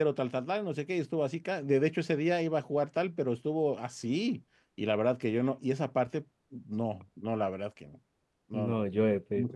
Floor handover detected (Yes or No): Yes